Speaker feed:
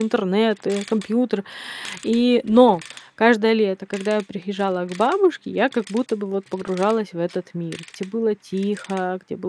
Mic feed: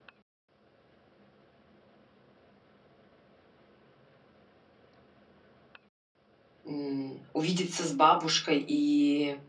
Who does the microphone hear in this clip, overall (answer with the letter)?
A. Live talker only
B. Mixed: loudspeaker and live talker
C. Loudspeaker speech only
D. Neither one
A